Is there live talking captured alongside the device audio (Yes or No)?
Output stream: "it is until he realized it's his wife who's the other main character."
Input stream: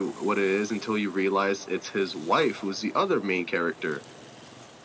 No